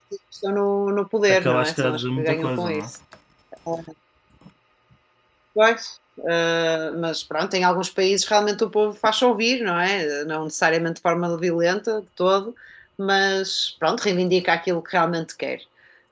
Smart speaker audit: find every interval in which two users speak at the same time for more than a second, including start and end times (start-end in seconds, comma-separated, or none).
1.3-2.9